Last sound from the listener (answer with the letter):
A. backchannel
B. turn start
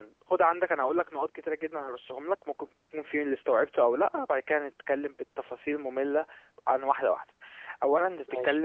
A